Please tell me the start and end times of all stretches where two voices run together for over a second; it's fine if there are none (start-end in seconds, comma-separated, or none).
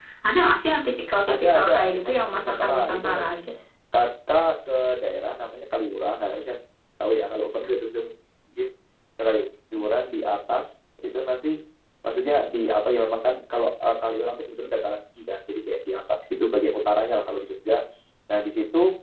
1.3-3.5